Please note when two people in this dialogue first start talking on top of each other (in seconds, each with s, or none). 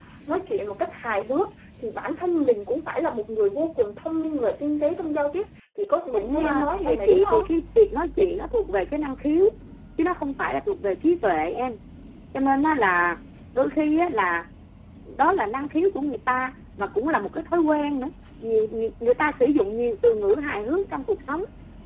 6.1 s